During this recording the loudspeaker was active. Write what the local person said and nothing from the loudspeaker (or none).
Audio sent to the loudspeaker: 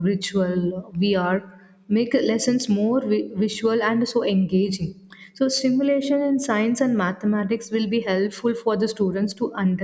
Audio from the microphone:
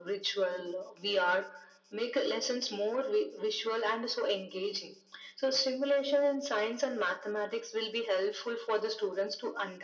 none